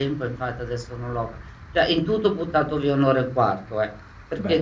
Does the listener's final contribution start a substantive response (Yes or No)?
No